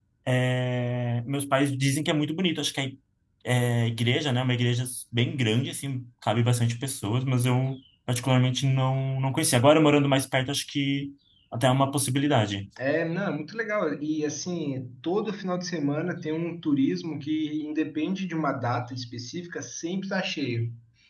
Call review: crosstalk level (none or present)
none